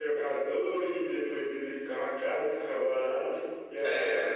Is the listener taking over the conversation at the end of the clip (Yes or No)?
No